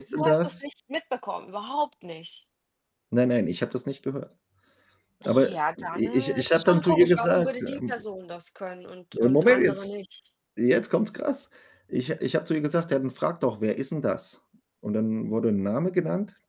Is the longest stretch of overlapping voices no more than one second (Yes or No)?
No